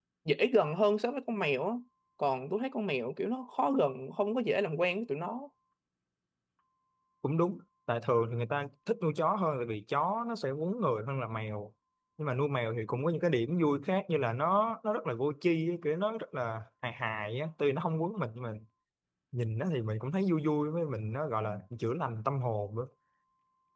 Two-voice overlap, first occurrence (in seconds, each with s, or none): none